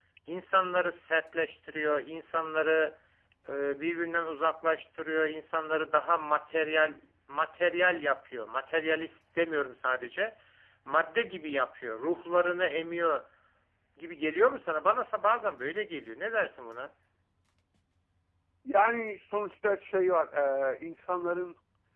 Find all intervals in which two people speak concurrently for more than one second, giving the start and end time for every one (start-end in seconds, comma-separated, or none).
none